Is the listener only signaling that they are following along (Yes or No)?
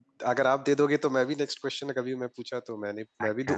No